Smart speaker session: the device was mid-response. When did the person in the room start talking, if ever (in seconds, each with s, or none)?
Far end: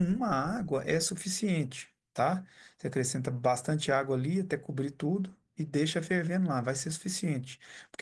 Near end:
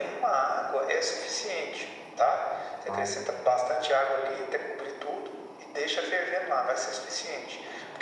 2.9 s